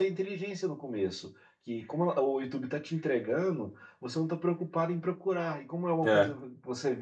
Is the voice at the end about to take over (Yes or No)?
No